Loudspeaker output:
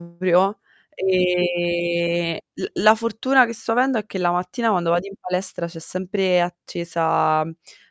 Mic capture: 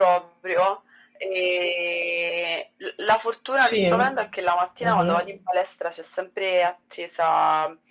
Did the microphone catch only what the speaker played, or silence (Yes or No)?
No